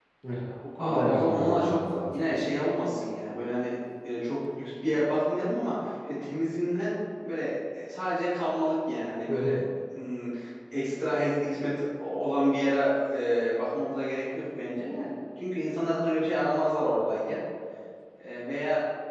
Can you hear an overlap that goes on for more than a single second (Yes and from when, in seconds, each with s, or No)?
Yes, from 0.8 s